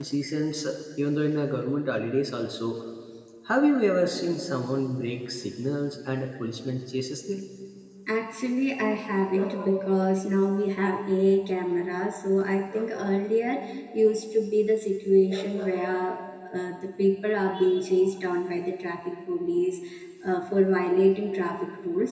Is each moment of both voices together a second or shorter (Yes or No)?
Yes